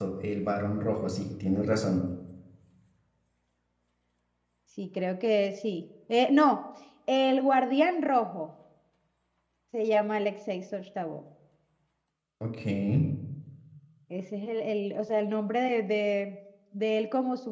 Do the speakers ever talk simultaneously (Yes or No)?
No